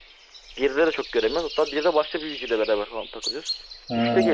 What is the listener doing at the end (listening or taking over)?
listening